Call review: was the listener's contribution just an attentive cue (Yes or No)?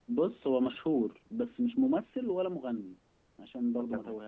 No